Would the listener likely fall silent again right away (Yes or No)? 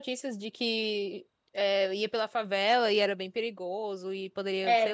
No